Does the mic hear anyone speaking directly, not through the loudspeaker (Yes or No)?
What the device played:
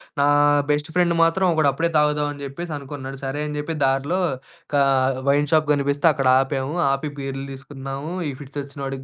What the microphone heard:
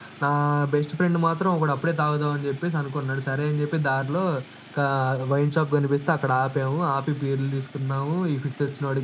No